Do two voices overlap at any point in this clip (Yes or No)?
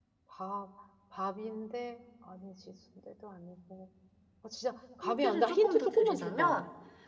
Yes